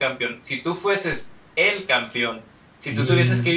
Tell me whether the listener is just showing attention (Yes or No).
Yes